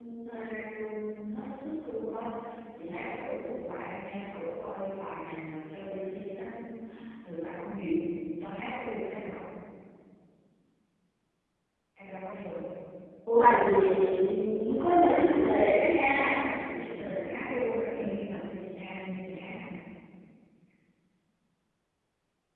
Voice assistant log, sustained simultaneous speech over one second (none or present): present